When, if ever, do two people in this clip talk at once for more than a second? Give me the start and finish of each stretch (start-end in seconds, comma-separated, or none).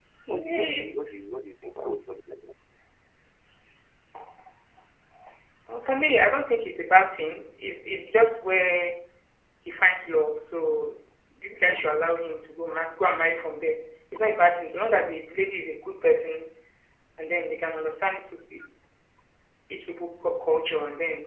none